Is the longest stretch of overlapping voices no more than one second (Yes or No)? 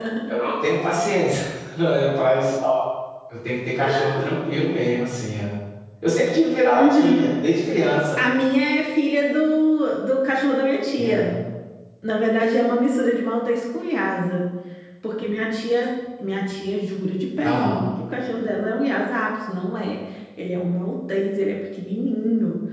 Yes